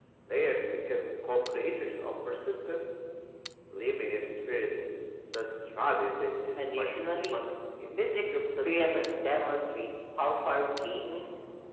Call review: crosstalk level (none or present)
present